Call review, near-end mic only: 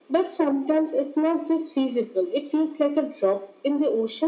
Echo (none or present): present